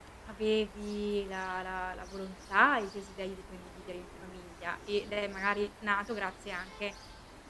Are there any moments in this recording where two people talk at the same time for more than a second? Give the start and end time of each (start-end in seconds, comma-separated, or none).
none